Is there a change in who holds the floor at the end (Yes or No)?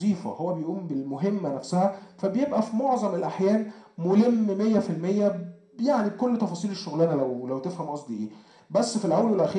No